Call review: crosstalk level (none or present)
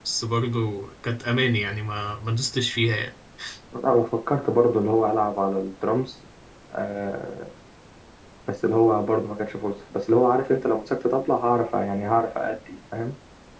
none